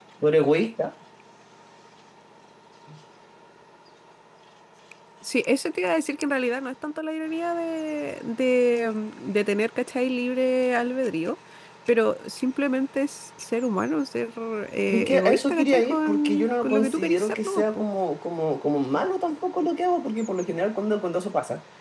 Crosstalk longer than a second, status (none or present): present